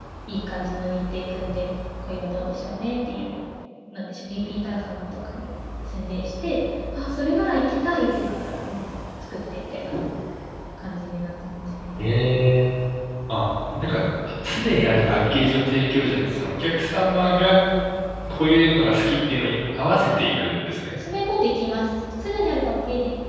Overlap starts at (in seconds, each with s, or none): none